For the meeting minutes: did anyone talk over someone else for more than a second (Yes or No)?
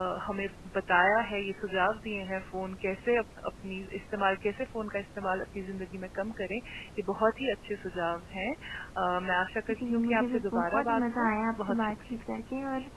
Yes